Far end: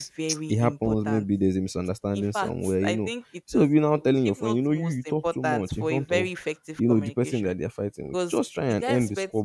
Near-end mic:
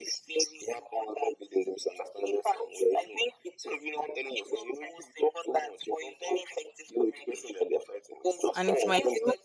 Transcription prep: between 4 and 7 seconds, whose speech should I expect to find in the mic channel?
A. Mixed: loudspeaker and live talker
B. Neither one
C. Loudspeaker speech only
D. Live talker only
C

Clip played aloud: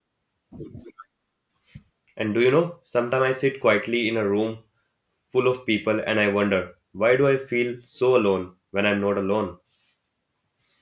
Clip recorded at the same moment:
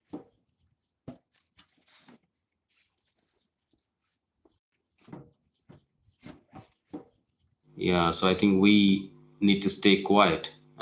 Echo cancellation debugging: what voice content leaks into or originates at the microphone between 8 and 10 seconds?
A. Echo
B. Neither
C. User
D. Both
C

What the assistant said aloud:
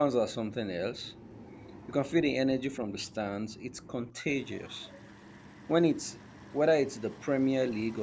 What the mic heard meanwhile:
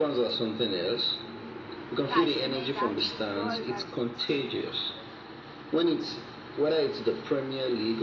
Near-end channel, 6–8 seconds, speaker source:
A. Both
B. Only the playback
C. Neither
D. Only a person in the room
B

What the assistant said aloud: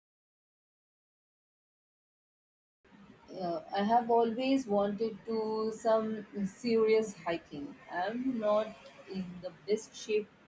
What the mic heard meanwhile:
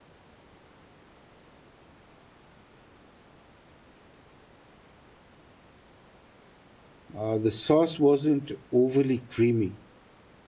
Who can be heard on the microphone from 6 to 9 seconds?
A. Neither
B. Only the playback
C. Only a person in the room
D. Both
C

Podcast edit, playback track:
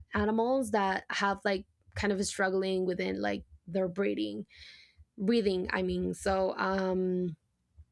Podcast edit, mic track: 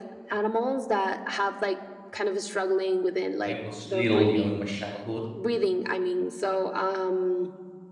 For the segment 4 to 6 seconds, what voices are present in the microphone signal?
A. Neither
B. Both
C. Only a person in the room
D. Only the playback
B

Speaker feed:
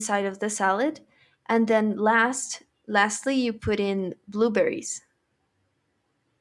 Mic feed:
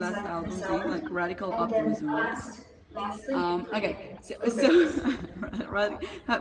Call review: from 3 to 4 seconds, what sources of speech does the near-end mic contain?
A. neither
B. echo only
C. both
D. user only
C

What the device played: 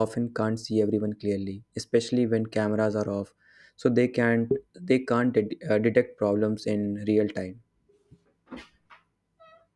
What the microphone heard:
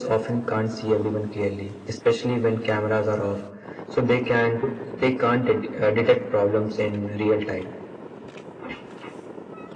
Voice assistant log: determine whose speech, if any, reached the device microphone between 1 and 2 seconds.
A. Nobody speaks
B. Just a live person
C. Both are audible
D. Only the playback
D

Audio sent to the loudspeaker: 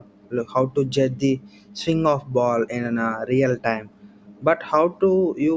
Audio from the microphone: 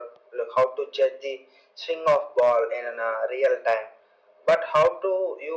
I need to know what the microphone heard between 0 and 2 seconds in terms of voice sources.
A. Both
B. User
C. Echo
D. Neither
C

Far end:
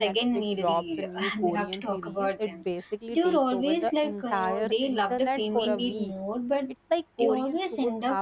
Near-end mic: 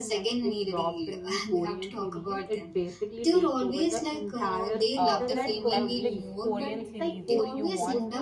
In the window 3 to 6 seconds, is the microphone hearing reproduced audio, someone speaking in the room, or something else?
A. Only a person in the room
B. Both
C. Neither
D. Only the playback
B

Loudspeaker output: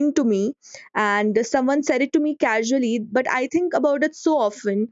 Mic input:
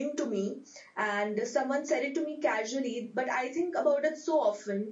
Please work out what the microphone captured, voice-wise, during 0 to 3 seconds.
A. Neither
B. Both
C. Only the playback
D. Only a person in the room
C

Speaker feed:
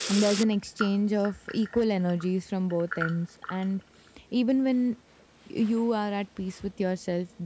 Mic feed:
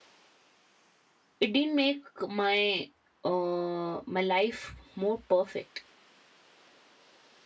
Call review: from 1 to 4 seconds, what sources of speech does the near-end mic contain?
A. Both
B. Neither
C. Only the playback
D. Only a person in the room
D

